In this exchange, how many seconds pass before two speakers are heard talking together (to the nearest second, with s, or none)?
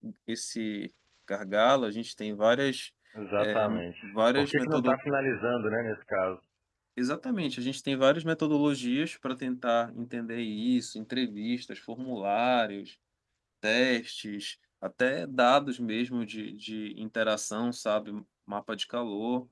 3 s